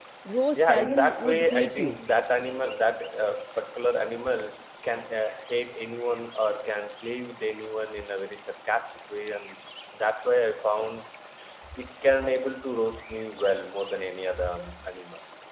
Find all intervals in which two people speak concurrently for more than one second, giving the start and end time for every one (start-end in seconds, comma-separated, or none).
0.6-2.0